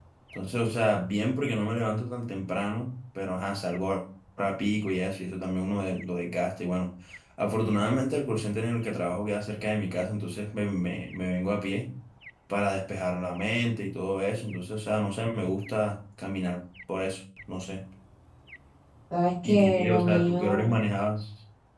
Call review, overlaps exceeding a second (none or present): present